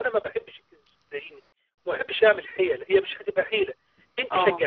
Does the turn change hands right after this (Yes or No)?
No